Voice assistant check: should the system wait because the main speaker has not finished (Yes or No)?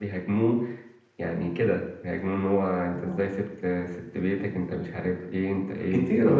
No